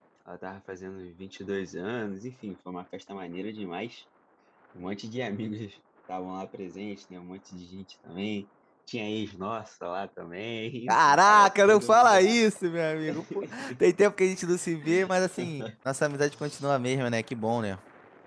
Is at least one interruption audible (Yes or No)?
Yes